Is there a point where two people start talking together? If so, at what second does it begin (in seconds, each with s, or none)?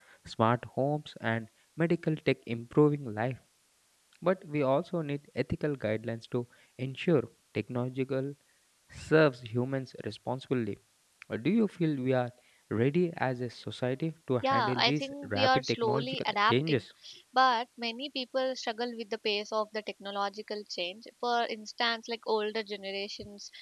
14.4 s